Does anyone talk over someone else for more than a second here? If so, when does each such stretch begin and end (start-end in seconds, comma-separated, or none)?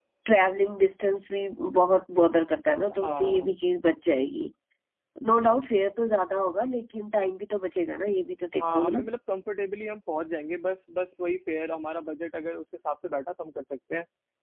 none